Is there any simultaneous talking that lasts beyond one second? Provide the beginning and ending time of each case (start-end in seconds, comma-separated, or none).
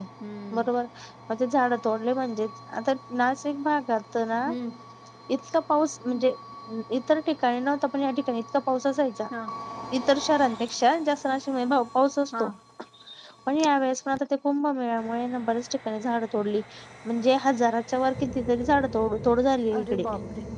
none